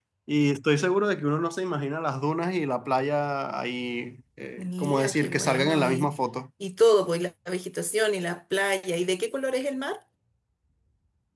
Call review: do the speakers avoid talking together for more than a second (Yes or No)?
No